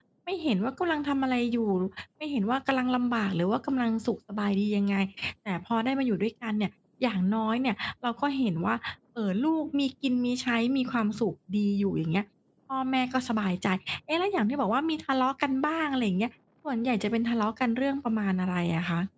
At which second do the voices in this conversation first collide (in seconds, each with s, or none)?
none